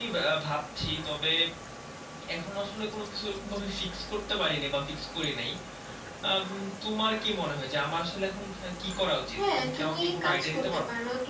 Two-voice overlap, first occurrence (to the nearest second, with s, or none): 9 s